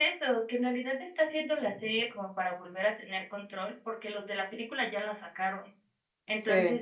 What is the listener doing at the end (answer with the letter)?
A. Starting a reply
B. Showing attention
B